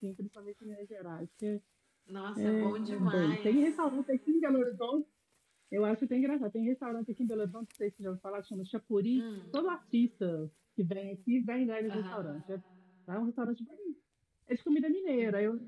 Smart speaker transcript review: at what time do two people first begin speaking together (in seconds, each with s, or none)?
2.4 s